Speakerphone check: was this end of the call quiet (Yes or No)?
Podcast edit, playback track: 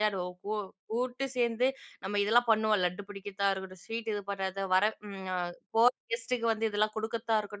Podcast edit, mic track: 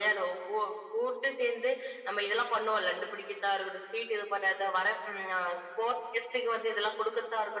Yes